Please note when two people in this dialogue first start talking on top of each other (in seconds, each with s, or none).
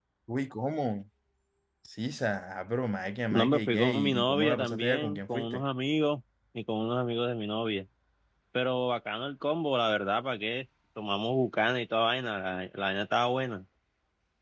3.3 s